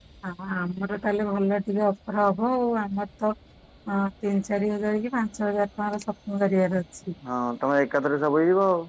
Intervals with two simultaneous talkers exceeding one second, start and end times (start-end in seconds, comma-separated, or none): none